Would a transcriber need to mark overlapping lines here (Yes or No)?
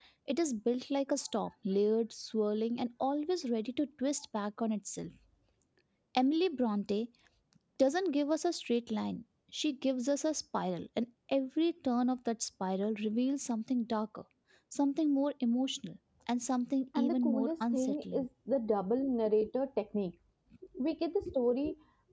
Yes